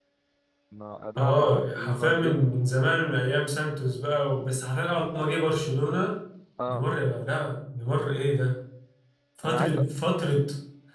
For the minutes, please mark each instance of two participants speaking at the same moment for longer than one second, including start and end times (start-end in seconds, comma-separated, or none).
1.2-2.5